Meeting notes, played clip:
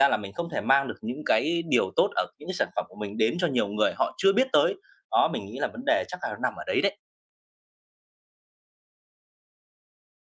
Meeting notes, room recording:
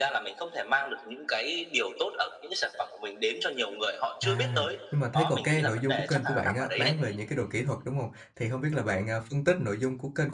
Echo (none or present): present